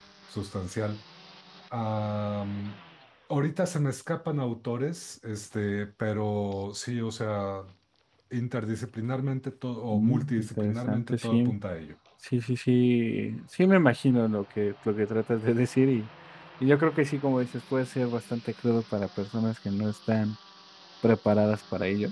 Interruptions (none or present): present